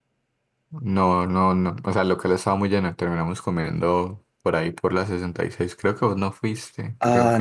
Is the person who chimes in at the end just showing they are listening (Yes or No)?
No